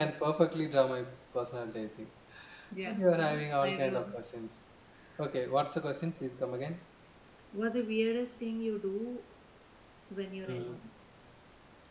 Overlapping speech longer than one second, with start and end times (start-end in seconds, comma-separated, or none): 2.9-4.1